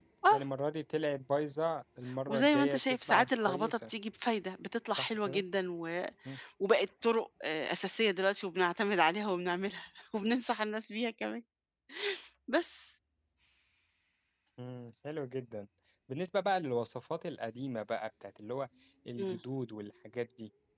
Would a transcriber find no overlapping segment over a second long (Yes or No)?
No